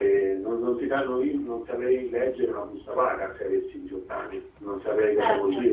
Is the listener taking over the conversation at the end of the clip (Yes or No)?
No